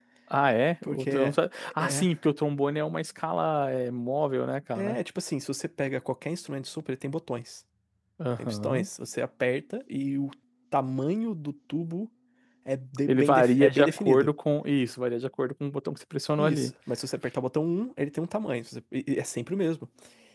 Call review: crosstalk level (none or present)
present